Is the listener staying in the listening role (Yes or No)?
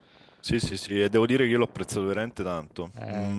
Yes